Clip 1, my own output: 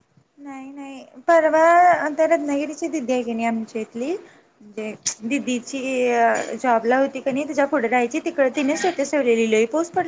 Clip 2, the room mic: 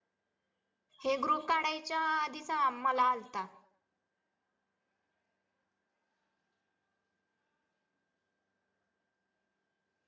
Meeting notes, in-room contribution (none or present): present